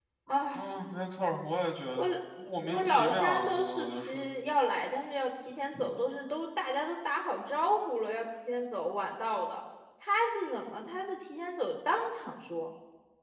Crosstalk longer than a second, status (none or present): present